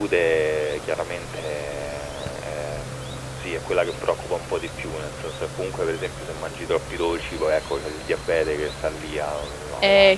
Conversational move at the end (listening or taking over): taking over